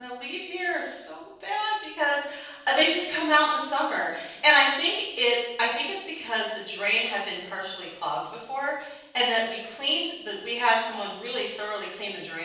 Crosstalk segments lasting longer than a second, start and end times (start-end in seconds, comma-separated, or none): none